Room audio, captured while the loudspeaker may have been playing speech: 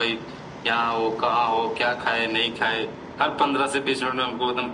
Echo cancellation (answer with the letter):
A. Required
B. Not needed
A